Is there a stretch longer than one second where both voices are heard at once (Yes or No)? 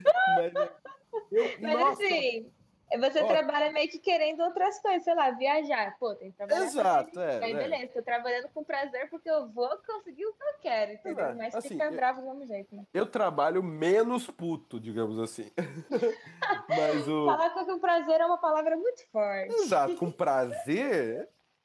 Yes